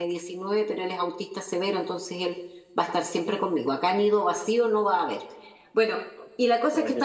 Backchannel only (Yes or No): Yes